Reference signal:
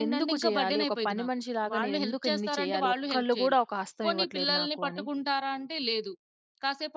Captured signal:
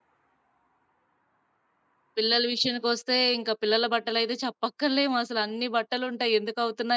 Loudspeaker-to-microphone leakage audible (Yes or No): No